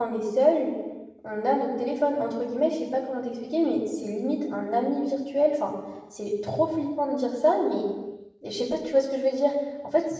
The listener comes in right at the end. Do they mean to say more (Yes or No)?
No